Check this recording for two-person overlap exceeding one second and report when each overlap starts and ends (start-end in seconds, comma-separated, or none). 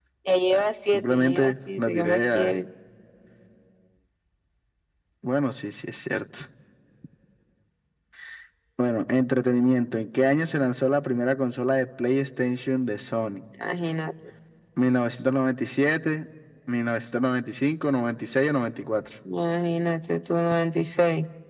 0.5-2.5